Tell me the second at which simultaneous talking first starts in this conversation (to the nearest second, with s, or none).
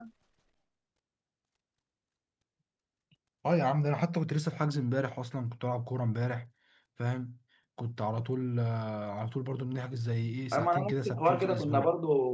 11 s